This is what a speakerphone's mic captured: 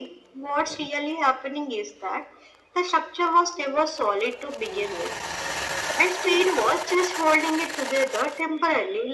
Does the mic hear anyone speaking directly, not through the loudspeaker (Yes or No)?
No